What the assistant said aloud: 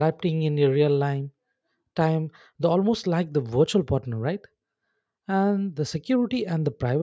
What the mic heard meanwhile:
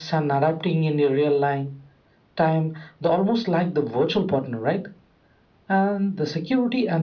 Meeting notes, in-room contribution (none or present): none